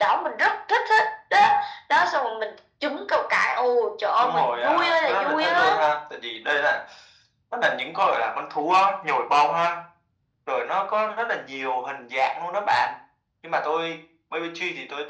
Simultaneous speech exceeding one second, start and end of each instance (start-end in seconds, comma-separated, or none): 4.2-5.7